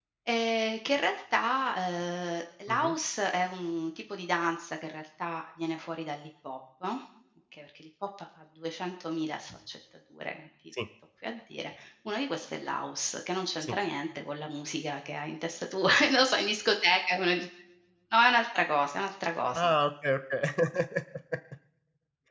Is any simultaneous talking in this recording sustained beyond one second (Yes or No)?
No